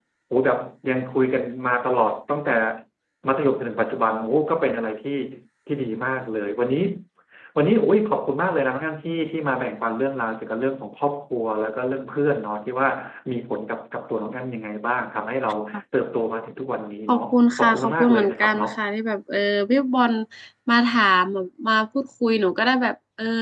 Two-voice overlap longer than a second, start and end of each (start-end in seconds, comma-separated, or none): 17.1-18.7